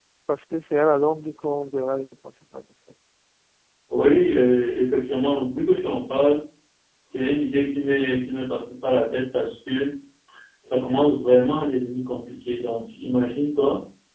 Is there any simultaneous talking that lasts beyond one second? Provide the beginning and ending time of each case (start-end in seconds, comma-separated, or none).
none